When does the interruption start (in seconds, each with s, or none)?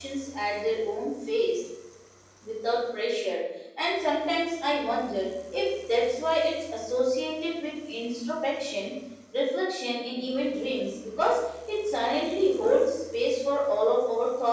none